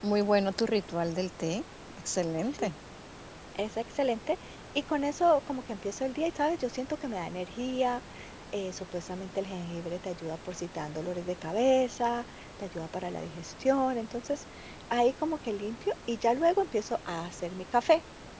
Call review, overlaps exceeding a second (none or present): none